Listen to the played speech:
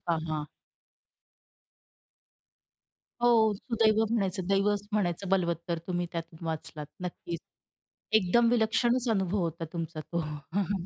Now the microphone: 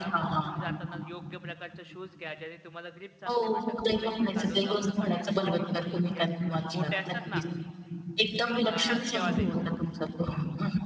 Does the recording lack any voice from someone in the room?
No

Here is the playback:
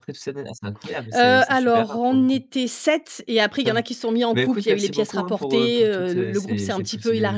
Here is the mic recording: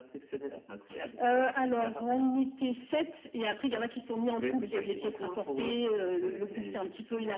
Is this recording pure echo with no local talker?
Yes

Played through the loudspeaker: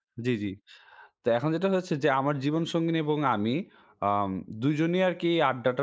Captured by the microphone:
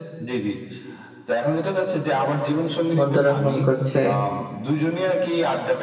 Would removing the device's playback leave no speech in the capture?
No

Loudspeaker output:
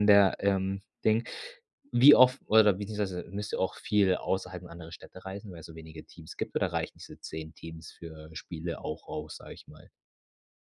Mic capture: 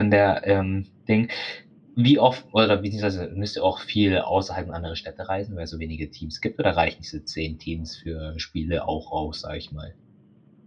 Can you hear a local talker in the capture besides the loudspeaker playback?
No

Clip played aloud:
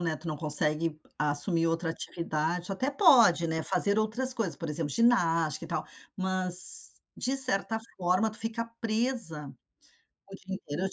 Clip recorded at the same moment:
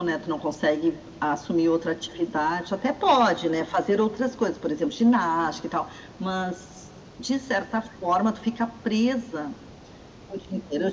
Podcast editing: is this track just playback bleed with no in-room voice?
Yes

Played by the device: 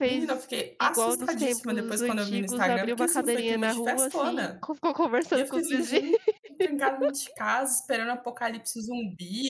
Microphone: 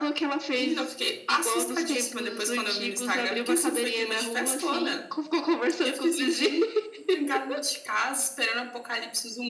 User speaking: No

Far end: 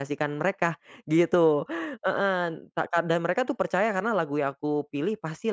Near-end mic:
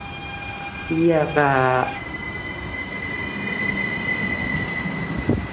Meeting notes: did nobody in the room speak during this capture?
No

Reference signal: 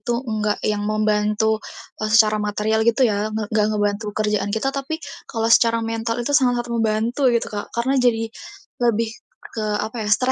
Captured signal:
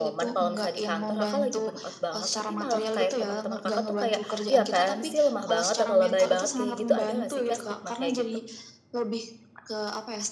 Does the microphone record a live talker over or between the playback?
Yes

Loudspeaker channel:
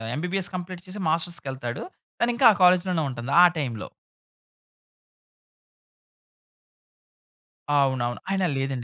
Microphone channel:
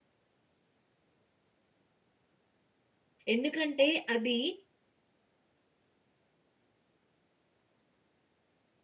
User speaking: Yes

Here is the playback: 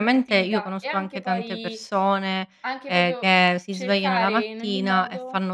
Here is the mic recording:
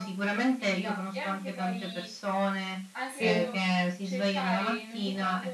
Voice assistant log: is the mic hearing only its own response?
No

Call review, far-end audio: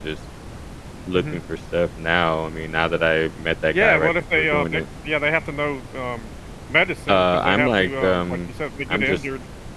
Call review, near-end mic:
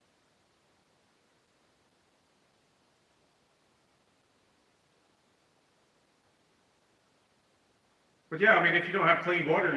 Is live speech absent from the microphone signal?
No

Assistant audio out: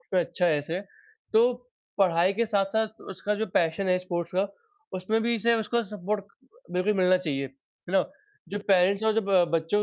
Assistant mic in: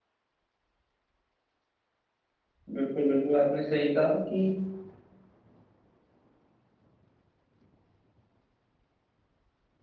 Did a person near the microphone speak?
Yes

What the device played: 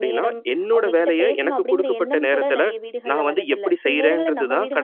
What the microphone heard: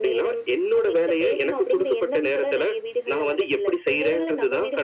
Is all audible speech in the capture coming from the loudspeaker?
Yes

